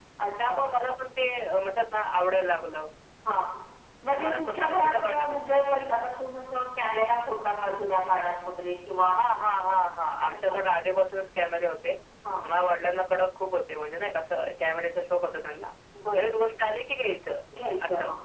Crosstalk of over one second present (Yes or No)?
Yes